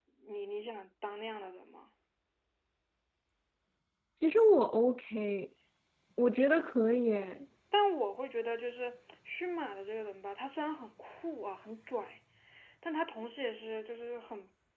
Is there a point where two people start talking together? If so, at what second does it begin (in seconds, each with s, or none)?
none